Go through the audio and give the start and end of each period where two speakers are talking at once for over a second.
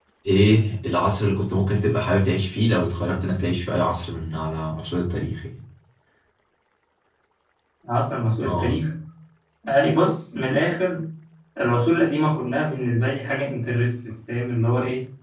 none

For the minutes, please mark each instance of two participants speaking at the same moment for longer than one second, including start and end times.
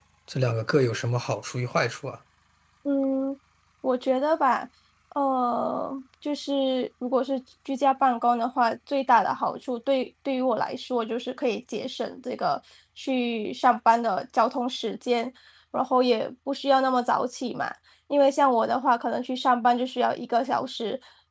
none

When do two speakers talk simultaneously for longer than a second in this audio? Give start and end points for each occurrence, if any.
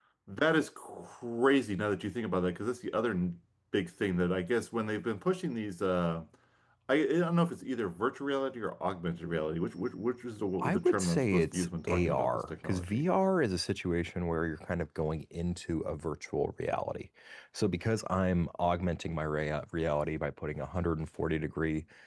10.6-13.0

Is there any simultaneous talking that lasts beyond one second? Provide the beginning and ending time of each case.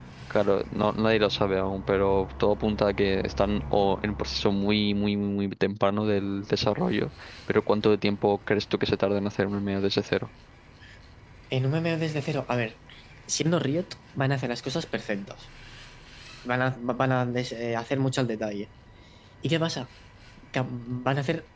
none

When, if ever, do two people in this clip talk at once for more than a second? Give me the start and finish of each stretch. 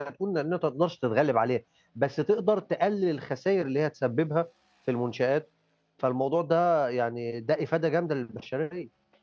none

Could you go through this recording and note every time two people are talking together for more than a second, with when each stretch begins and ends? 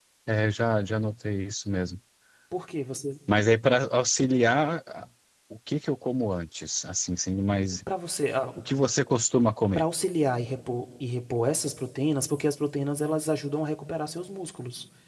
none

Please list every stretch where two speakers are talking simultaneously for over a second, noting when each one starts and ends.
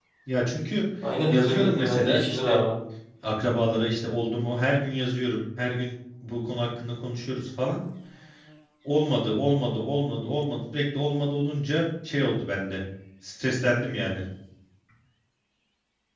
1.3-2.6

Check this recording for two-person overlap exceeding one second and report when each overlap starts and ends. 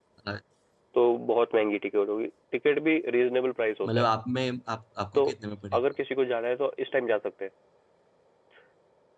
none

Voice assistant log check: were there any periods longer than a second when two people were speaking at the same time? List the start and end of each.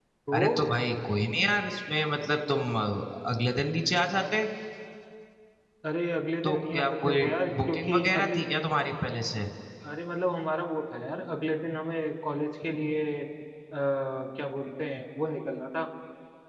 6.4-8.4

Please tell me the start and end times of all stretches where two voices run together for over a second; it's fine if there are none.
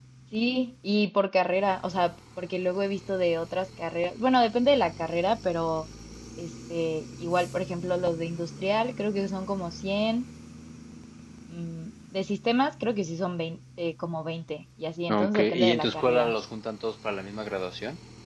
15.1-16.3

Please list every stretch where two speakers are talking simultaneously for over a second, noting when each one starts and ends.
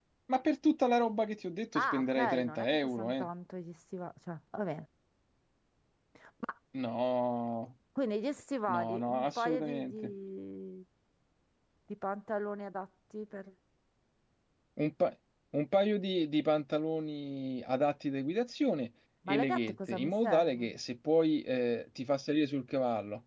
1.8-3.3, 8.7-10.1, 19.3-20.8

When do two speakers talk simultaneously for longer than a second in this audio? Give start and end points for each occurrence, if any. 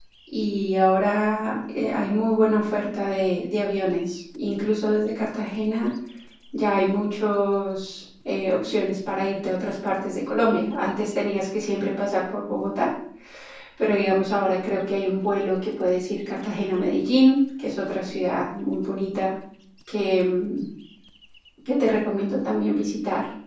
none

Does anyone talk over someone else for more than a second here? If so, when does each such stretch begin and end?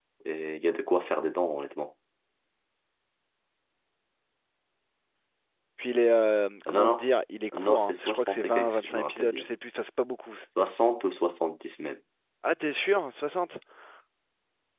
7.6-9.5

